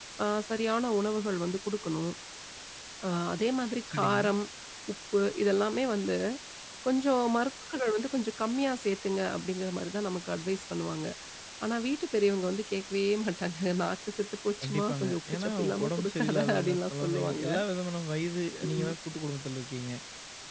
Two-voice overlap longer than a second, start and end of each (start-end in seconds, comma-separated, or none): 14.6-17.5